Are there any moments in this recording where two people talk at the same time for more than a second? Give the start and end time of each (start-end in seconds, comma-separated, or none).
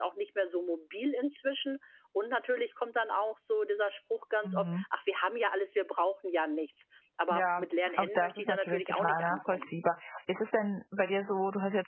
7.3-9.7